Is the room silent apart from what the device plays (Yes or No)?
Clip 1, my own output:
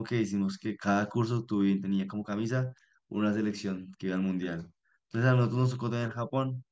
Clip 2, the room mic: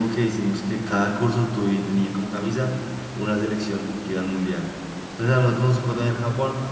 Yes